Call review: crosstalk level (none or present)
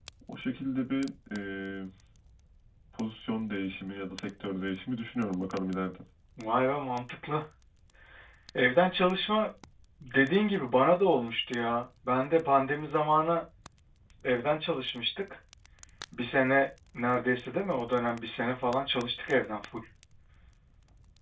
none